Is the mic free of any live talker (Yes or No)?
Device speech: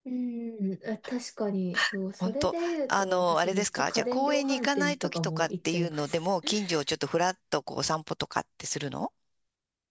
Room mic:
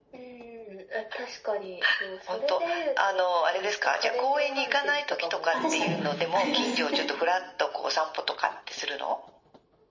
No